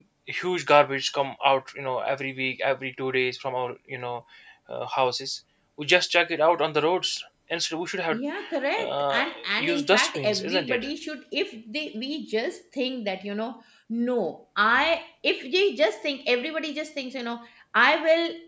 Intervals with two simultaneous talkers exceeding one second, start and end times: 8.8-10.8

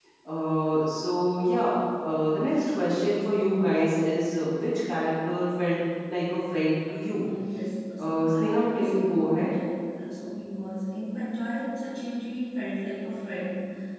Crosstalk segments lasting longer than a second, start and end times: 8.0-9.5

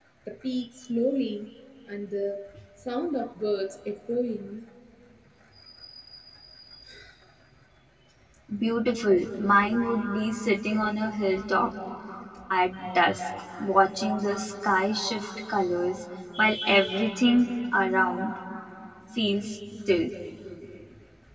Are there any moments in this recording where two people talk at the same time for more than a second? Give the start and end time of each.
none

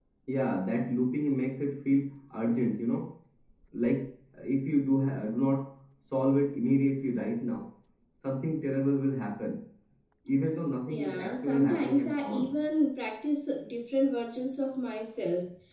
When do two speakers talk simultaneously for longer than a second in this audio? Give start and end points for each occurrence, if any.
10.9-12.5

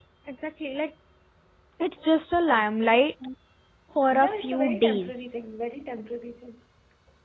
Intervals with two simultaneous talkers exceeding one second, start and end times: 4.1-5.3

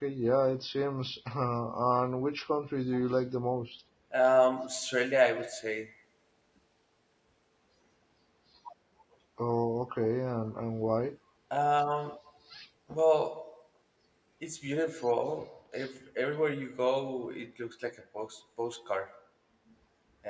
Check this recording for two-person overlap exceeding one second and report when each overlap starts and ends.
none

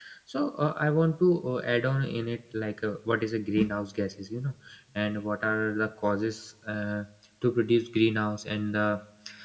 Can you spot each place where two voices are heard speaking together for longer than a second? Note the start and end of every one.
none

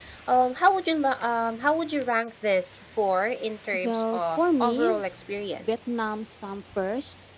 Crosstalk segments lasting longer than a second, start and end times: 3.7-5.0

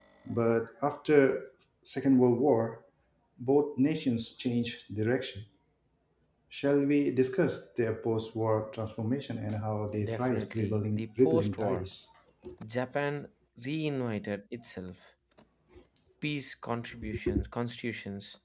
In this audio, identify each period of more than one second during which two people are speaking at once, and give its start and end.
10.0-11.9

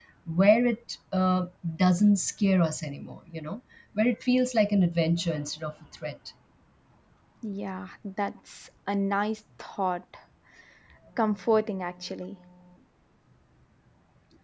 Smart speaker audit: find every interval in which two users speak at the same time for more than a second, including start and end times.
none

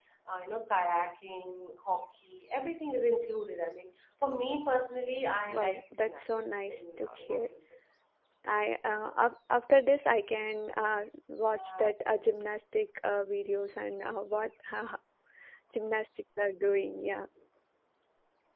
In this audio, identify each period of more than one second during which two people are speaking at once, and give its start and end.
5.5-7.5

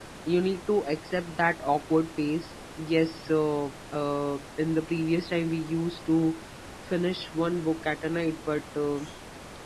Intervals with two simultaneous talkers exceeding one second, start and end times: none

